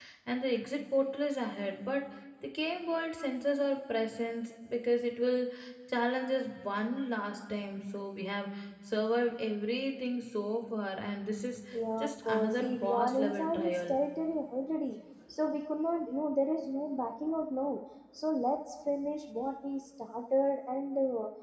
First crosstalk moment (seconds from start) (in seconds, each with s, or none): 12.0 s